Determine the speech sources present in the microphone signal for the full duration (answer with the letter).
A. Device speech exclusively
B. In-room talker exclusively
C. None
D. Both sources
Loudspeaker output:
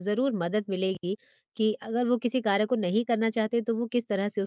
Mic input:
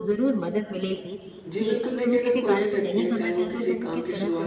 D